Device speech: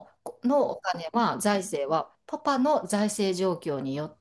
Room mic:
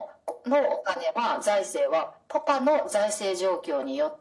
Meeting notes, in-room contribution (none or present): none